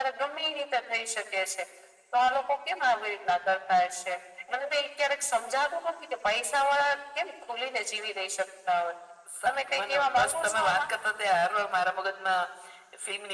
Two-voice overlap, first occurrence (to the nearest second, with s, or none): 9 s